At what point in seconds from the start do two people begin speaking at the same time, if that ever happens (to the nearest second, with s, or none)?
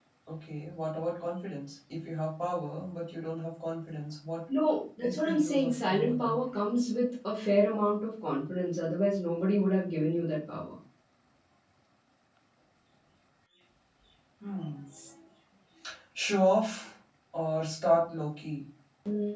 5 s